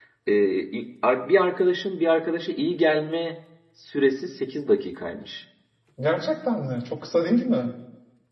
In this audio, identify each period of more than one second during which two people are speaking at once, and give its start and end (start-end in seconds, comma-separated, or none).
none